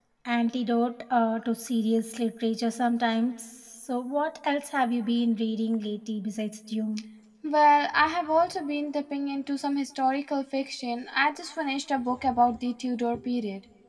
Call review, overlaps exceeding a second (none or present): none